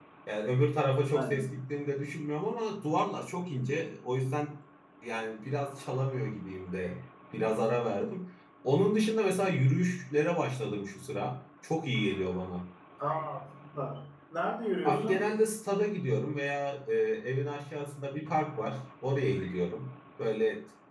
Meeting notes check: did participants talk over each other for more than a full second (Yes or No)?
No